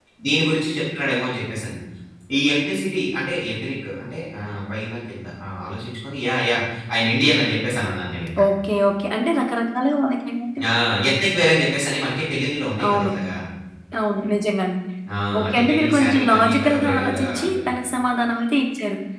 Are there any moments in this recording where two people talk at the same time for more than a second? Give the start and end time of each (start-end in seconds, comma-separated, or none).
15.4-17.6